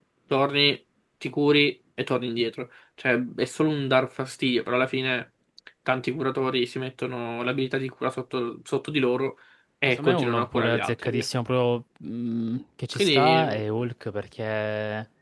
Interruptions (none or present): present